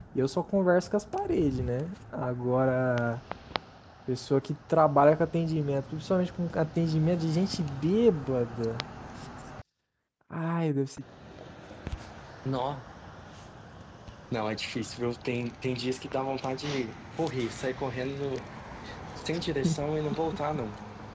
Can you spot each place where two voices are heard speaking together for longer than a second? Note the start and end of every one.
none

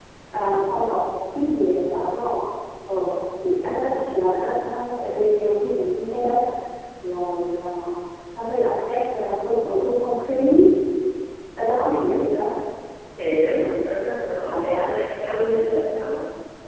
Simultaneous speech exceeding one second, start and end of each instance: 14.4-16.0

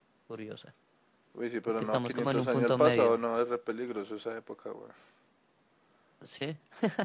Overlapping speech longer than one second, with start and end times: 1.8-3.1

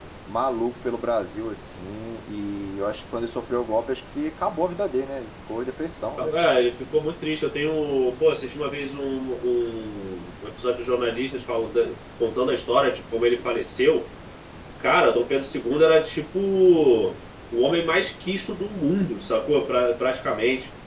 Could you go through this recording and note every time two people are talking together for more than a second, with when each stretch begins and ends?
none

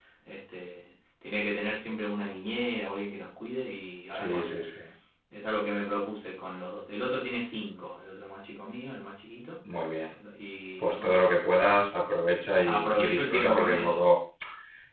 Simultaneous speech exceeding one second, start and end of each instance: 12.6-14.1

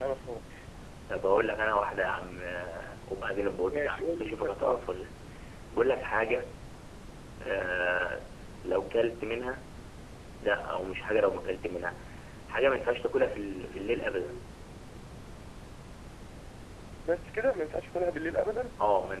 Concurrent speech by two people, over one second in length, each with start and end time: 3.7-4.9

